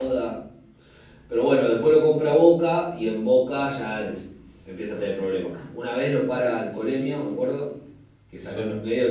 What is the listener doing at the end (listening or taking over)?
listening